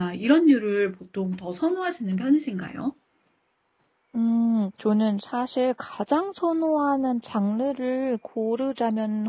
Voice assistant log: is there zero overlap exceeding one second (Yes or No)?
Yes